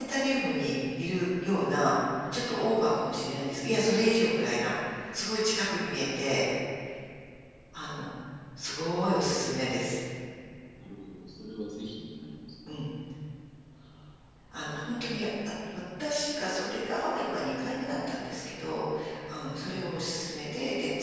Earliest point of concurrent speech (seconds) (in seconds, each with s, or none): none